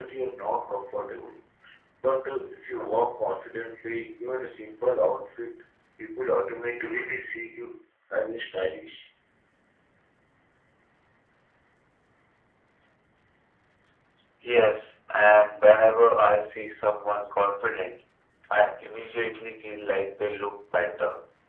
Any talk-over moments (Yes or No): No